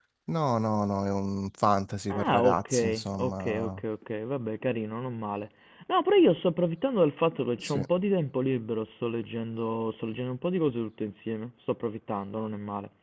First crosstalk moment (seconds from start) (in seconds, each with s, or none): 2.1 s